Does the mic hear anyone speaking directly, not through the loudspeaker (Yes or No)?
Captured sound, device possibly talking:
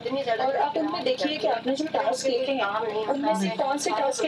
Yes